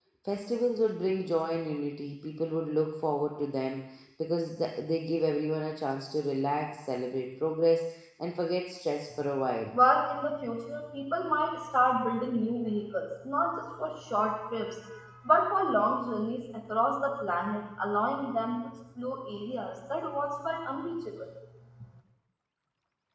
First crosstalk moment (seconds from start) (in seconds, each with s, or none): none